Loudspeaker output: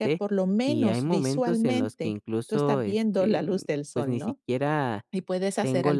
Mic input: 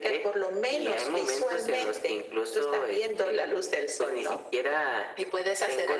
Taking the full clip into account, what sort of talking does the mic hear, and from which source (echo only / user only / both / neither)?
echo only